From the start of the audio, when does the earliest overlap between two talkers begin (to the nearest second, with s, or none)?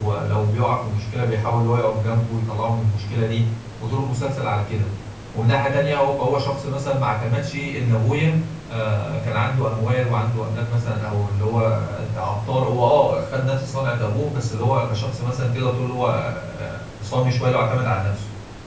none